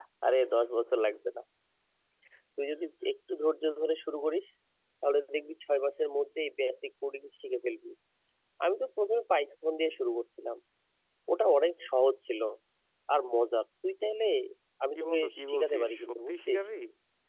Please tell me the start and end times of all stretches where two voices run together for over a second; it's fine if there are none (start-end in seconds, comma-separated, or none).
14.9-16.6